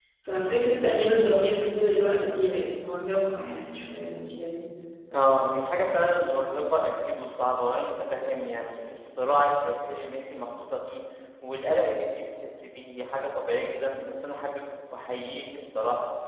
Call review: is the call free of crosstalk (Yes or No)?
Yes